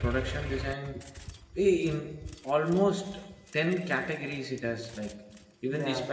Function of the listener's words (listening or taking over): listening